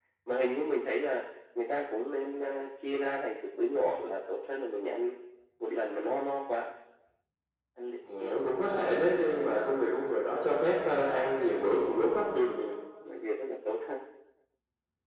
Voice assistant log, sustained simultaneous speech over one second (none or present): none